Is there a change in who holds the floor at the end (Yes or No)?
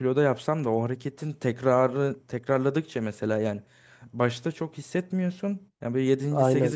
No